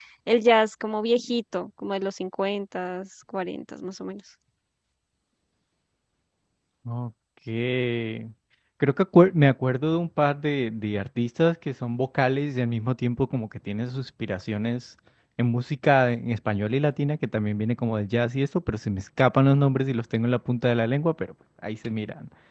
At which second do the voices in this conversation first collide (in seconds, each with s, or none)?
none